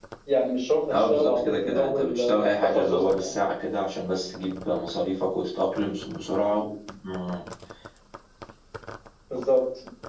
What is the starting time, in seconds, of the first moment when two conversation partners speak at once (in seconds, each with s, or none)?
0.9 s